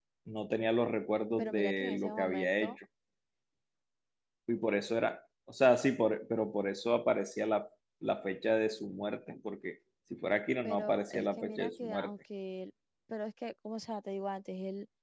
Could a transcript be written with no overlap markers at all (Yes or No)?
No